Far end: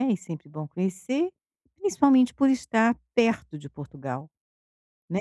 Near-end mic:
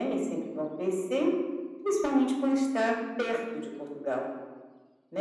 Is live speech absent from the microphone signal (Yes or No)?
Yes